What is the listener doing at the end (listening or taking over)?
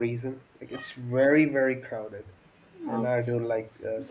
listening